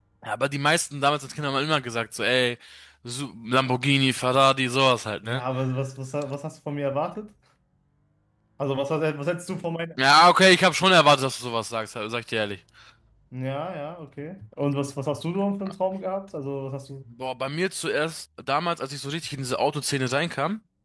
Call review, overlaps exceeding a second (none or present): none